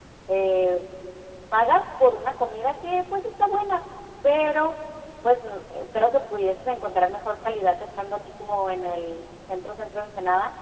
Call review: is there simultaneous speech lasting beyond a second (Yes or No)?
No